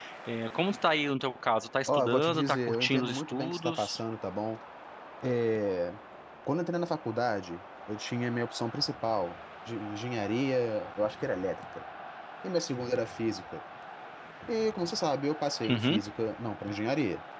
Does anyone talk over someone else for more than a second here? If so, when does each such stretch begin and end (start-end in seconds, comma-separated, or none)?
1.9-4.0